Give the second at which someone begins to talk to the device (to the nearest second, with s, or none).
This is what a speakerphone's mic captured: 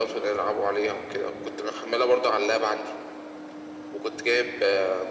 none